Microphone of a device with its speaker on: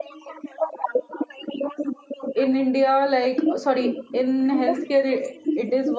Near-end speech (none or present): present